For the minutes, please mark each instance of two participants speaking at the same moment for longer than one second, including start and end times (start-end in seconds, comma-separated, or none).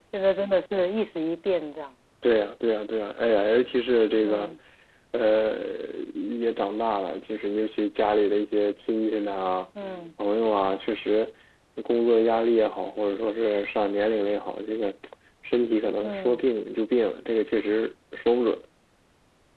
none